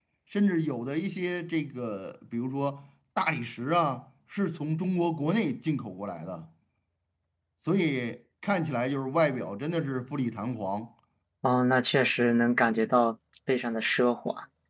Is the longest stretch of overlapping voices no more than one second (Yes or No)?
Yes